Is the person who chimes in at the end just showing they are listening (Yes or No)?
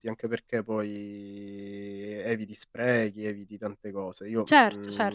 No